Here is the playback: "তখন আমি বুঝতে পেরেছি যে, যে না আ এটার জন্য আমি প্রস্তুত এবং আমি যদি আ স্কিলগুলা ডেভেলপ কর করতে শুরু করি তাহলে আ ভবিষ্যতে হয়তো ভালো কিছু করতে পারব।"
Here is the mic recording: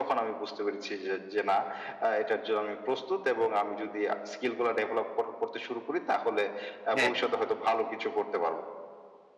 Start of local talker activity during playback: 7.0 s

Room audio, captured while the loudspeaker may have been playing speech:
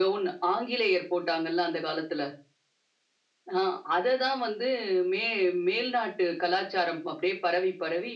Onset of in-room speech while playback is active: none

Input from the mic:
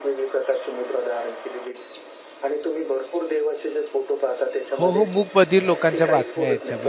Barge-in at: 4.8 s

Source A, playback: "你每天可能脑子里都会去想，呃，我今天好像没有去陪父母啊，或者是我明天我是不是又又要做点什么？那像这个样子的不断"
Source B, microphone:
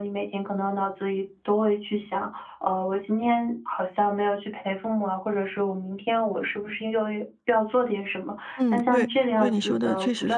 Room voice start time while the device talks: 8.6 s

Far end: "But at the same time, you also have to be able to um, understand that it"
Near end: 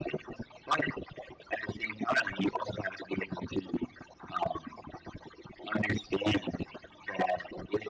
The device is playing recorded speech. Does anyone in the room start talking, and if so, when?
none

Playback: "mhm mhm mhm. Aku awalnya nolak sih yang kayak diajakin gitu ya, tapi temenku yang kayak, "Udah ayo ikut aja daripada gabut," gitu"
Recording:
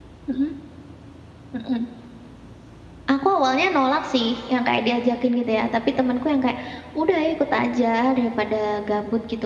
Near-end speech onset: none

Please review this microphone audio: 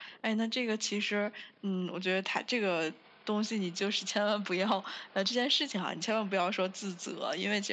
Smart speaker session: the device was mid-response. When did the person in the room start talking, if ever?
none

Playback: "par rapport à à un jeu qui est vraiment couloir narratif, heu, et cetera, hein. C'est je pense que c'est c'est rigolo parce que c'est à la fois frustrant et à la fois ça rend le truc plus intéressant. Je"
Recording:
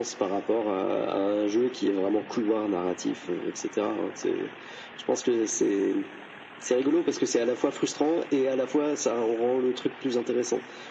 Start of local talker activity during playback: none

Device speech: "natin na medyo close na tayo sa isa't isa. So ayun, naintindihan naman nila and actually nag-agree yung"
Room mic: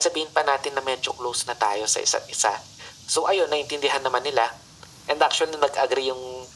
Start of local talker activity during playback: none

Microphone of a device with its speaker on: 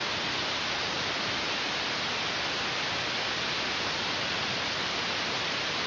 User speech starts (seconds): none

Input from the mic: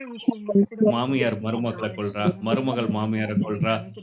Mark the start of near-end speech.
0.9 s

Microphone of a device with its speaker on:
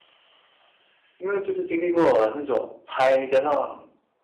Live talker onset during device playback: 1.2 s

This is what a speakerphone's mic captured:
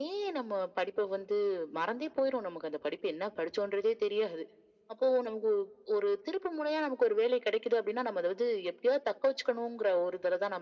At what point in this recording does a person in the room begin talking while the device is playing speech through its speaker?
none

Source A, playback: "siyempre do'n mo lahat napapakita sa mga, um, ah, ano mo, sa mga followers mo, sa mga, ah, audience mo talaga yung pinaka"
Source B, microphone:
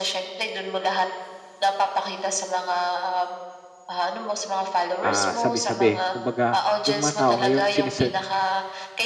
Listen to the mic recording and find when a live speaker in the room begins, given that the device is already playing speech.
5.0 s

